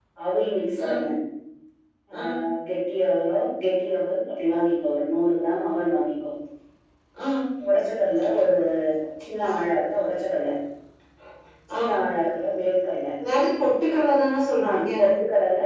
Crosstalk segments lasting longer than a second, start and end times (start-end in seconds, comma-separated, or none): none